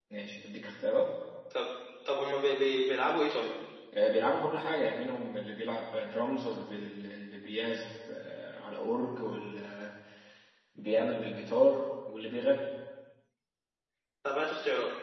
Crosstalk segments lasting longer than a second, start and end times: none

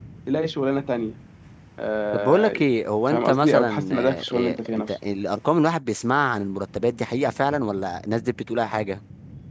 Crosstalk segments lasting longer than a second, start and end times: 3.1-4.9

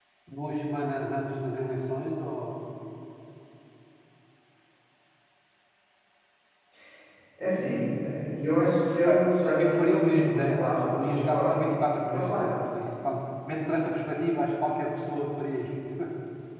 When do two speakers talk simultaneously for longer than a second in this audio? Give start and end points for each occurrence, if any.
9.1-11.6

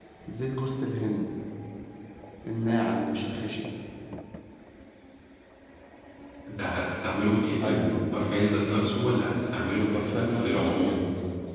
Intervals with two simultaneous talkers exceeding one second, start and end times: 9.8-11.0

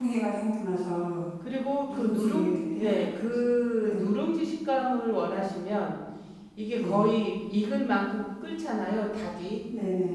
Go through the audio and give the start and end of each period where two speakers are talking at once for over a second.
1.9-3.1

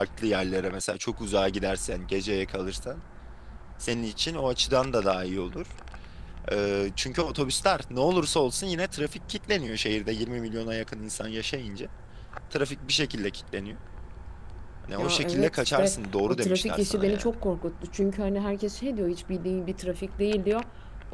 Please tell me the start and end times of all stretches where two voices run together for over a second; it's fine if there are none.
15.0-17.3

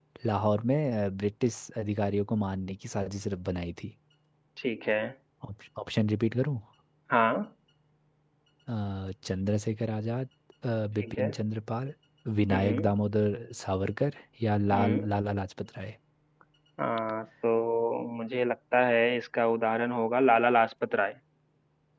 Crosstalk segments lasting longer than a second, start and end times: none

